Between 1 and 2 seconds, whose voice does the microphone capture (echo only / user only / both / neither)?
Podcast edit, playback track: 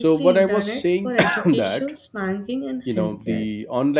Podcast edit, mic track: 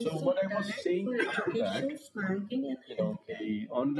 echo only